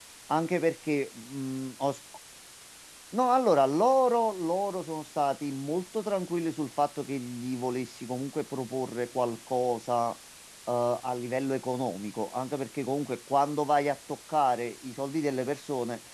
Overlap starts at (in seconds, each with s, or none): none